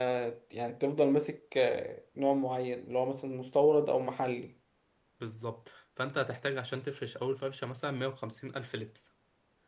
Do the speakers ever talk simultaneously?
No

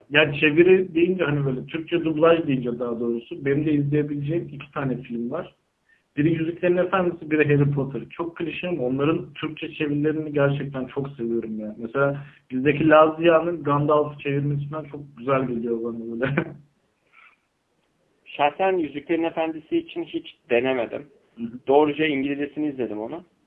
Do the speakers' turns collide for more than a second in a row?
No

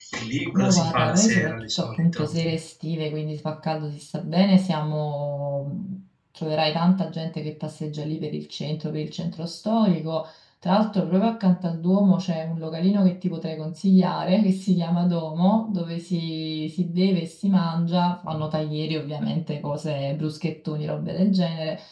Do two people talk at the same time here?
Yes, from 0.5 s

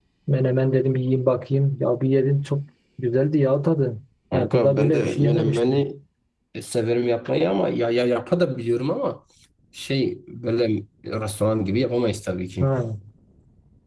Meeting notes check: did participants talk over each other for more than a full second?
Yes, from 4.3 s

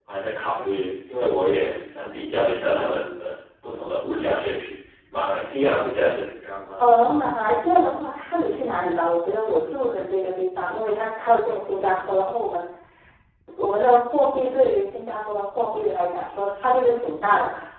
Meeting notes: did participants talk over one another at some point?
No

